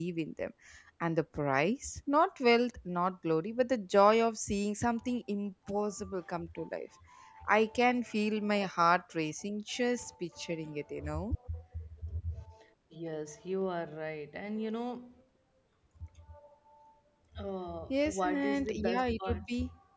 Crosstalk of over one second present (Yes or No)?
Yes